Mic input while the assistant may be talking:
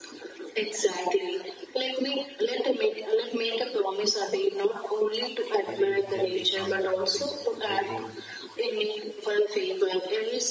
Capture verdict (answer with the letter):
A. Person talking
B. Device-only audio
A